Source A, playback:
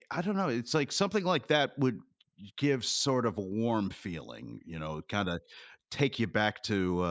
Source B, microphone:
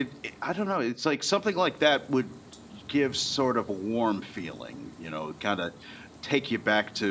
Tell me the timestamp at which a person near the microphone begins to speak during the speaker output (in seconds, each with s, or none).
none